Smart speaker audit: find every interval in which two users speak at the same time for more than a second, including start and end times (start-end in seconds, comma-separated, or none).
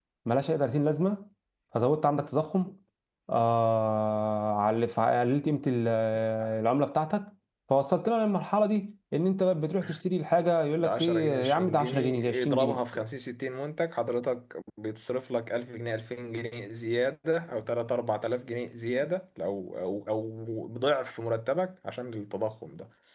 10.8-12.8